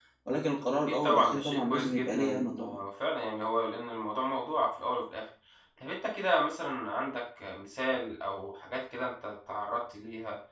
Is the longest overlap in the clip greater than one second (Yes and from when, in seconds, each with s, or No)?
Yes, from 0.9 s